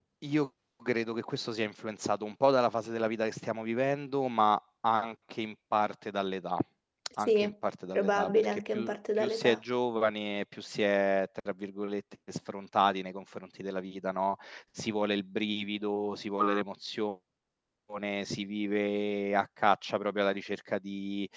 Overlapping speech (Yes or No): Yes